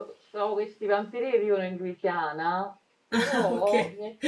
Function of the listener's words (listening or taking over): listening